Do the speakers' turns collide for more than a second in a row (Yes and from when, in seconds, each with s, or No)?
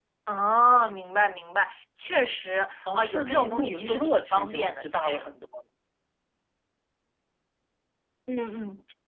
Yes, from 2.9 s